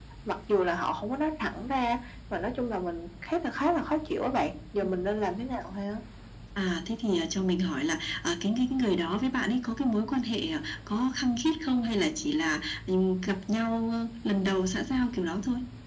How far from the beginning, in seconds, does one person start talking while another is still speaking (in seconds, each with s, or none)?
none